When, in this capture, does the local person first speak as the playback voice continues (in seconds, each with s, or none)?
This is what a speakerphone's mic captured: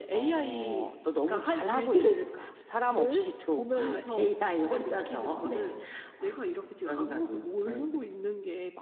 none